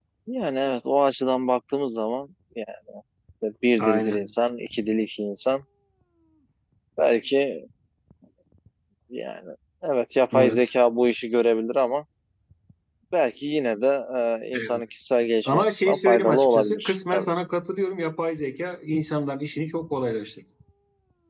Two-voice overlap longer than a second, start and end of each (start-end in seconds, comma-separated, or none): 15.4-17.3